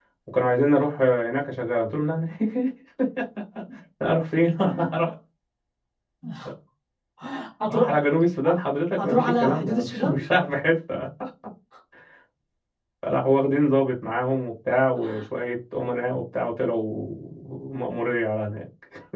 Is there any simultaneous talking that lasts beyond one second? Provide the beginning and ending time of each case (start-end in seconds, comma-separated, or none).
9.0-10.2